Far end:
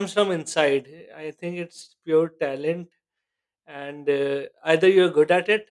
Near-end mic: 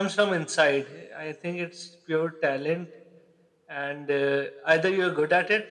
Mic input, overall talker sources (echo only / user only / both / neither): echo only